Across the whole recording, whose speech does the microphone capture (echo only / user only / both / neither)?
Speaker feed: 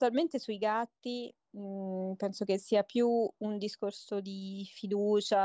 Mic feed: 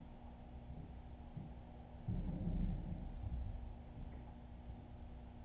neither